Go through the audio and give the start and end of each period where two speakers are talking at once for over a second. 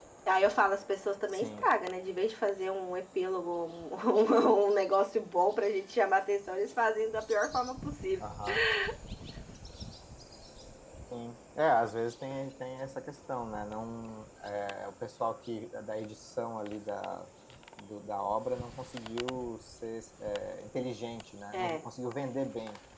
none

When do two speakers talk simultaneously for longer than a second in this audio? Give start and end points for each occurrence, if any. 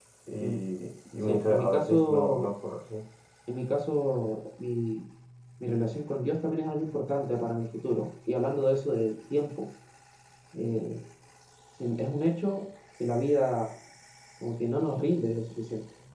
1.2-2.5

